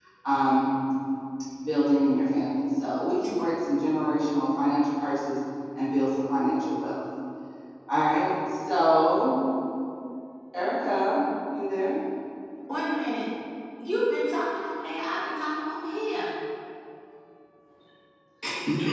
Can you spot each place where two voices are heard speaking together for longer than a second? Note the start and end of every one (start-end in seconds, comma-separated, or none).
none